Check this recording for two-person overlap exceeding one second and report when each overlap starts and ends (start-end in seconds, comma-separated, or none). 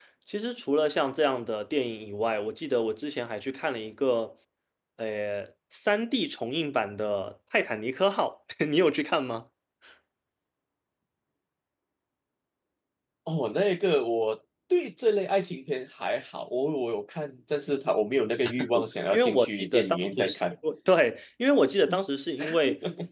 19.1-20.4